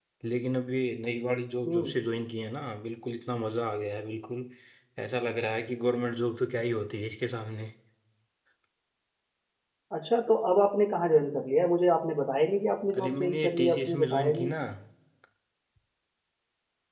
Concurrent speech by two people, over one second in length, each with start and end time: 13.0-14.5

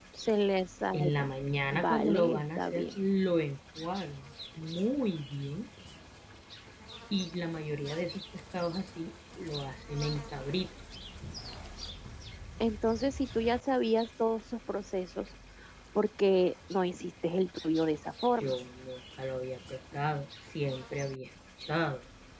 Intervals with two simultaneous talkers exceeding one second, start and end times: 1.7-3.0

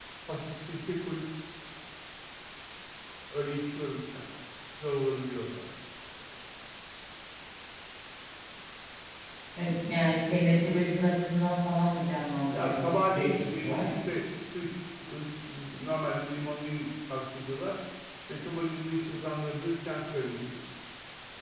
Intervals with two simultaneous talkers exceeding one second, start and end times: 12.5-13.9

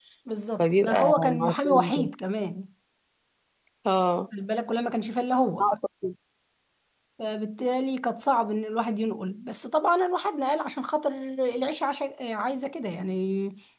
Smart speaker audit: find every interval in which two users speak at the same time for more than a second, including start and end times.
0.6-2.1

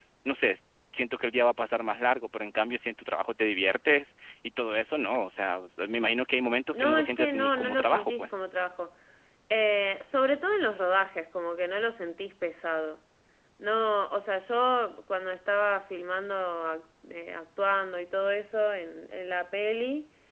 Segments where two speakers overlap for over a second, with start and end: 6.7-8.3

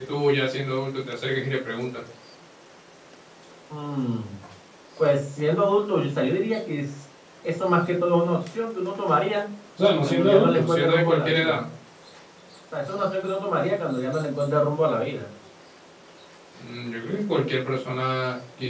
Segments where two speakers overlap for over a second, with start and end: 10.0-11.6

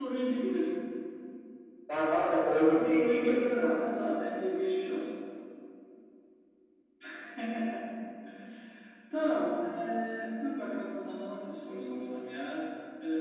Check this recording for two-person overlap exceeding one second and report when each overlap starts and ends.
2.6-4.2

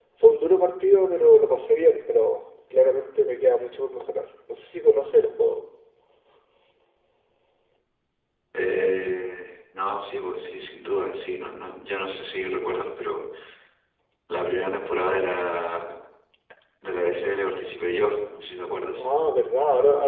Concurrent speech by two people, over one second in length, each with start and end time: none

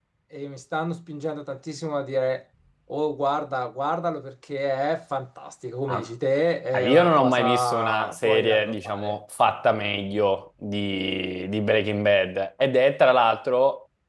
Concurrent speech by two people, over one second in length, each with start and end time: 6.7-9.2

